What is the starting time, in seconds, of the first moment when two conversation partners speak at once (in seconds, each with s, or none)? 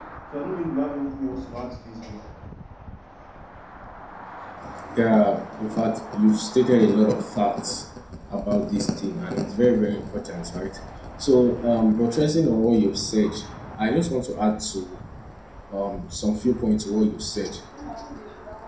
none